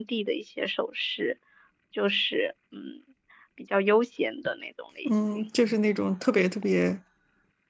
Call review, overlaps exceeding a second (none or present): none